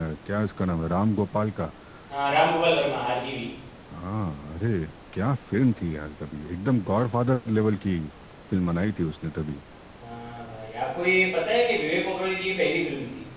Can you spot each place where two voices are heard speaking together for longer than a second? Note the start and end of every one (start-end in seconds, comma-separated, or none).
none